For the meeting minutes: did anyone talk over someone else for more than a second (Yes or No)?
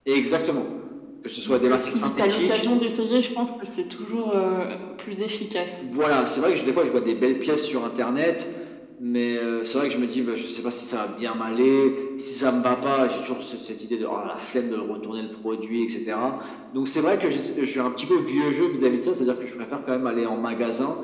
Yes